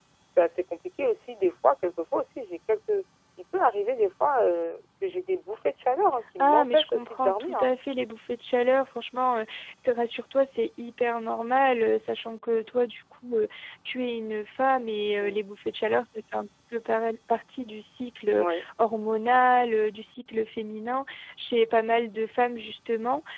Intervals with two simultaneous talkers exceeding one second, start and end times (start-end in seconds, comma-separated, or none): 6.4-7.7